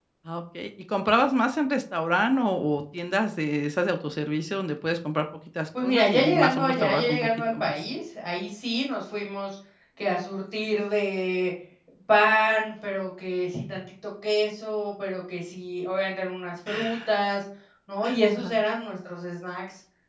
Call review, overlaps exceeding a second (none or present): present